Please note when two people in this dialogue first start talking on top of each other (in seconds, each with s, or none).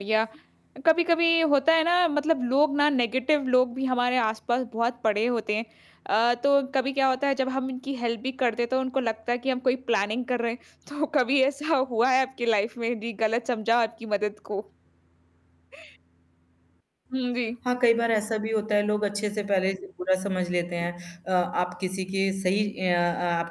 none